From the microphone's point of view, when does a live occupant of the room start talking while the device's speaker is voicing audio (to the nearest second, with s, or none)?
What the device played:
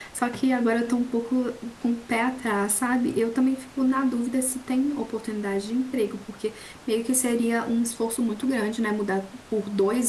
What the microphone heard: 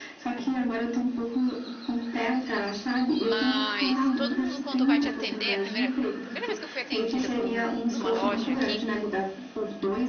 3 s